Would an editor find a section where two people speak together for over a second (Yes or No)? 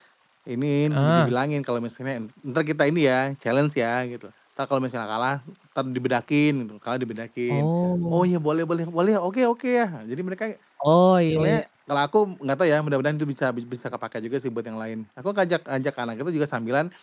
No